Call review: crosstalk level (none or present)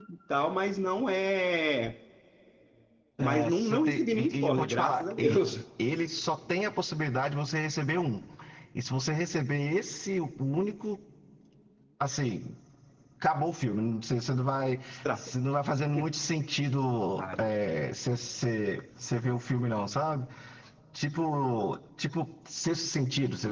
present